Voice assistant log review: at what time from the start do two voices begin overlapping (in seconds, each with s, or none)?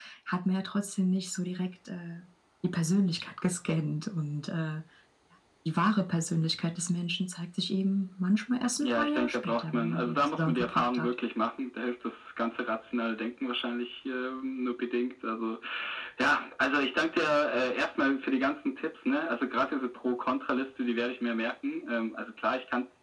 8.8 s